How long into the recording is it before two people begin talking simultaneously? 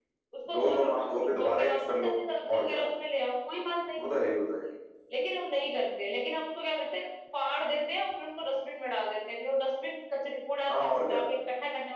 1 s

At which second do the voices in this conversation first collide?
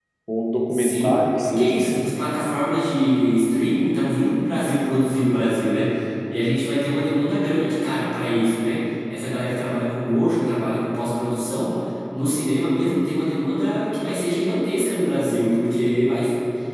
1 s

